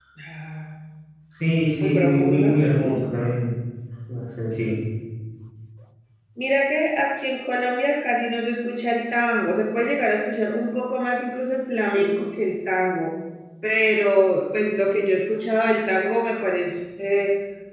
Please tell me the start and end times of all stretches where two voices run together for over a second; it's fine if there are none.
1.8-3.0

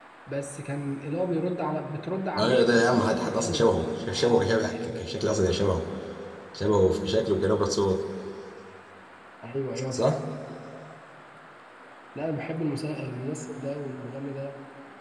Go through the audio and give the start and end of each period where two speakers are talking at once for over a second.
2.4-5.2

